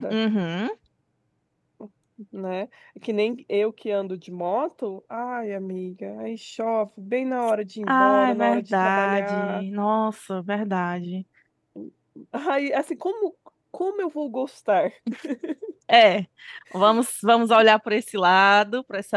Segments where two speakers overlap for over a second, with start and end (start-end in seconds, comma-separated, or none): 7.8-9.6